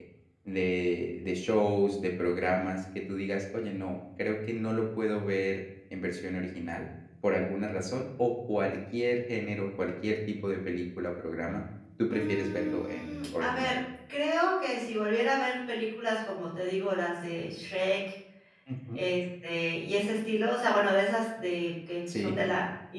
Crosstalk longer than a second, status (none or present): present